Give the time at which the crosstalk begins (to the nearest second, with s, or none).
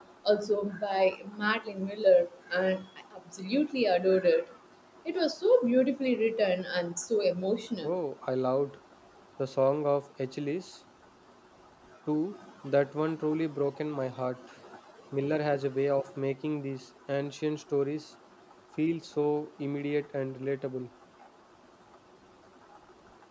none